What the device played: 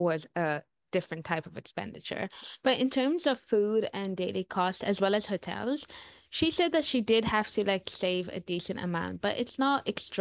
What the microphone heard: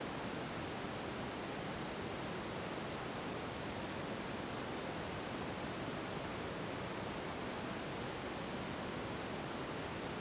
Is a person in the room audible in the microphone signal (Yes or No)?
No